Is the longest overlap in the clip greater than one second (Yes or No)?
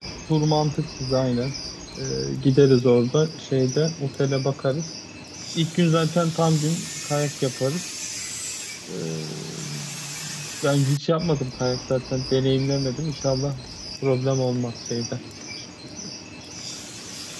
No